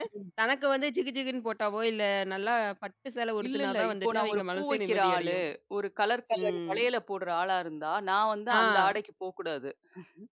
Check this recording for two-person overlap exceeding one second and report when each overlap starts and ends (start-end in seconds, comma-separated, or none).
3.5-5.3